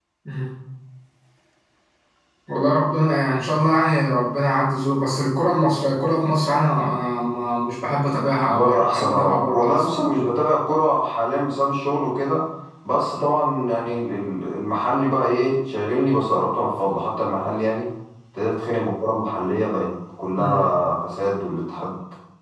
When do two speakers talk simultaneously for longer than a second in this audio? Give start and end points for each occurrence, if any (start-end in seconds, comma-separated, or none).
8.4-9.8